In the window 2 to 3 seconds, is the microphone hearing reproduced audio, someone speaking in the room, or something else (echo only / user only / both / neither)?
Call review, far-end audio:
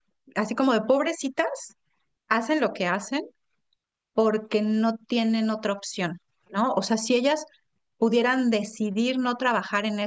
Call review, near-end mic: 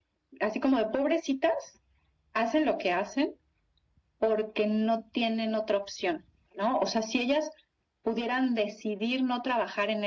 echo only